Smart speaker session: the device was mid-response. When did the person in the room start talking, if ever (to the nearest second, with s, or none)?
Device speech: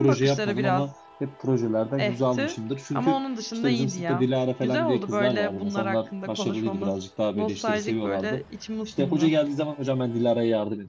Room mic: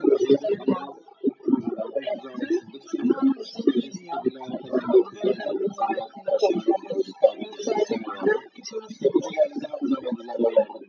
none